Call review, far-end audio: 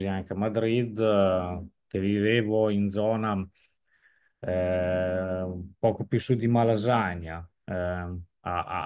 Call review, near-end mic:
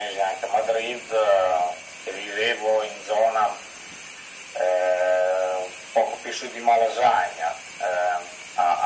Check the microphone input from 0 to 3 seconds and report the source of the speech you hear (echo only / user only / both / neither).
echo only